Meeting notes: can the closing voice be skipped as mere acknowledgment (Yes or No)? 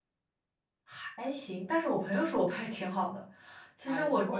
No